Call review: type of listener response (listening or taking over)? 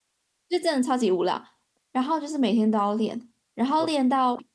listening